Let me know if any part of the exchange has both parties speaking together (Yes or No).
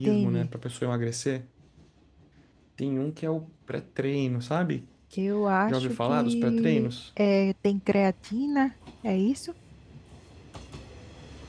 Yes